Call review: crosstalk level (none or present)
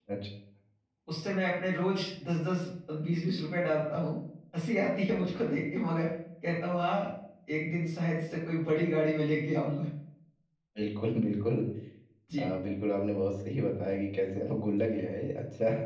none